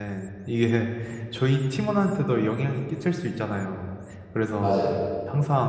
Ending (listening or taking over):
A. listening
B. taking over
A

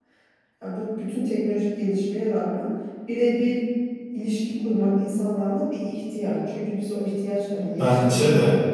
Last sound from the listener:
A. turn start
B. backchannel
B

